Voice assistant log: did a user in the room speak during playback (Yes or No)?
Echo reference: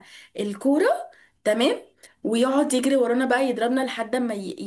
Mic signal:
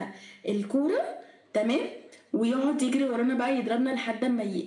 No